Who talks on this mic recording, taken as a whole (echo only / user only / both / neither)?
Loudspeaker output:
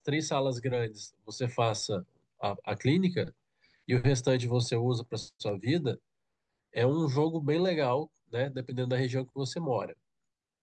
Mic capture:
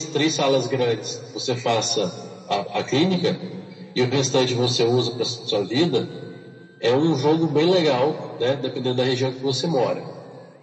echo only